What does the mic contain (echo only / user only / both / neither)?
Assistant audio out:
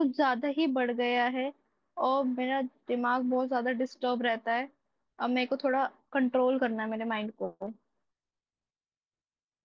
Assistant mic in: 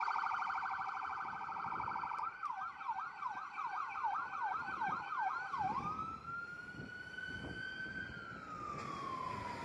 neither